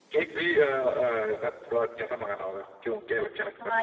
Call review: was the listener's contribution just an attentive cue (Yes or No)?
No